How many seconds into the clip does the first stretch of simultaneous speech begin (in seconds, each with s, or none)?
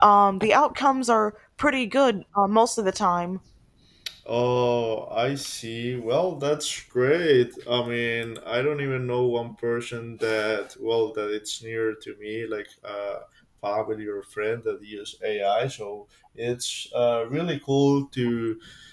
none